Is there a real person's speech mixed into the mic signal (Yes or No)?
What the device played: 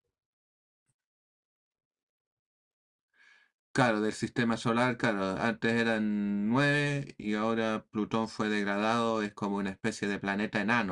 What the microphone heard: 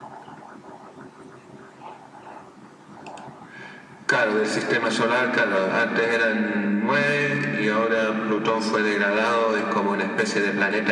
No